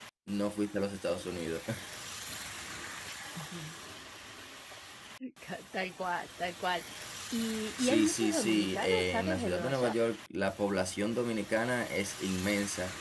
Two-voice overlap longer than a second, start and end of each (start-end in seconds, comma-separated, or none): 7.8-9.9